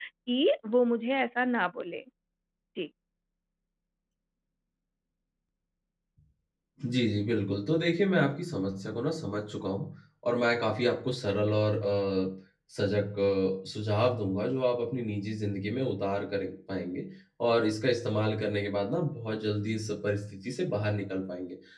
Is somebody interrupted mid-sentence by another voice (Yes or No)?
No